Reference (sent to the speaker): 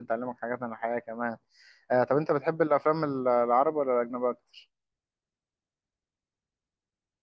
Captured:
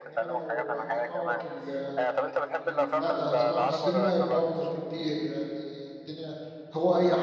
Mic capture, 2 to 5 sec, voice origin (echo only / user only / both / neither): both